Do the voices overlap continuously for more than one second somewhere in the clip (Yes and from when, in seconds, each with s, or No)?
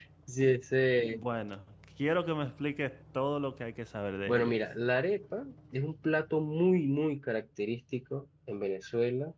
No